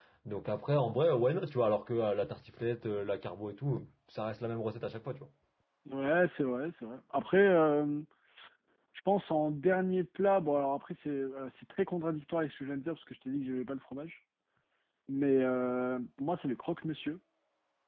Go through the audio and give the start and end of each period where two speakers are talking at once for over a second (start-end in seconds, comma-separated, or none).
none